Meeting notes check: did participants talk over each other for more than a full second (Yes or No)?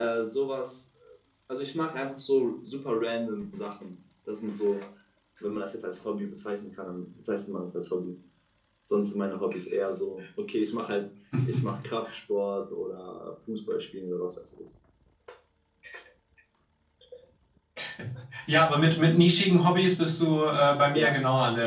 No